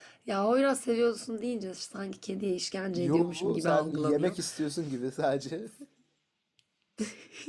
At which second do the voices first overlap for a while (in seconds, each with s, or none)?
2.9 s